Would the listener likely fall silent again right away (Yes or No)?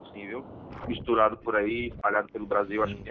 No